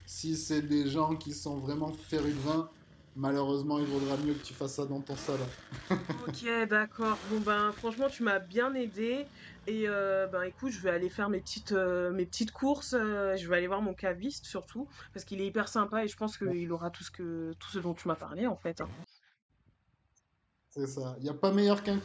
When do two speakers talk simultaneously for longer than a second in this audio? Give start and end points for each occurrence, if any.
none

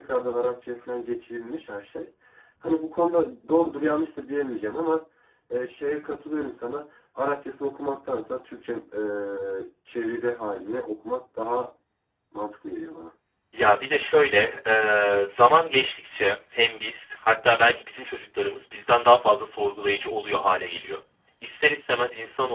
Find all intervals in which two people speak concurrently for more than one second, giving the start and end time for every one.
none

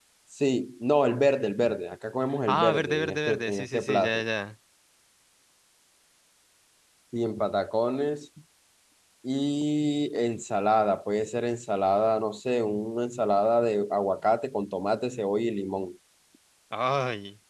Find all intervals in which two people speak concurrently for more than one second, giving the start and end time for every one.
2.5-4.2

